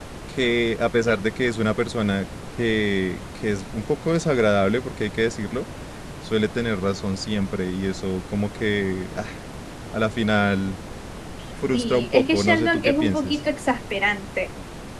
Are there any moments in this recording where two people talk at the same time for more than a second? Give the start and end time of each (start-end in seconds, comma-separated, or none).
11.7-13.4